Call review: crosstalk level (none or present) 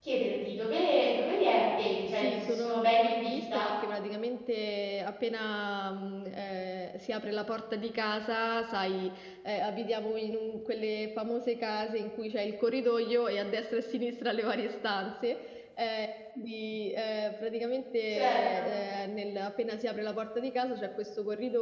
present